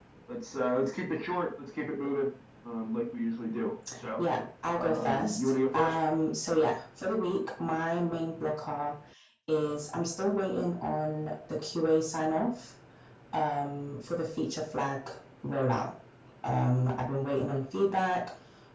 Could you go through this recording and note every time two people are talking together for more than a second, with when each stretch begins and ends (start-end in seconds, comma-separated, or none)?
4.7-6.0